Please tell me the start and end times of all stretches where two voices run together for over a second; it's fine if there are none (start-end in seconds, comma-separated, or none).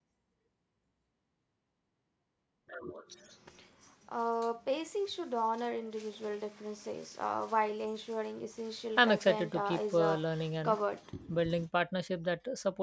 9.0-10.2